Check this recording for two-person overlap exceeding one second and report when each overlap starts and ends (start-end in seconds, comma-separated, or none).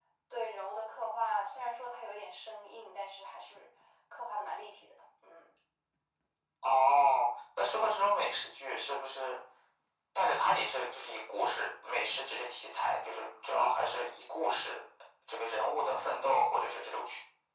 none